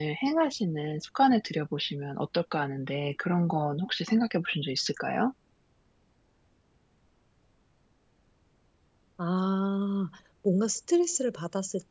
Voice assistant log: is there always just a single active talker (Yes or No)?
Yes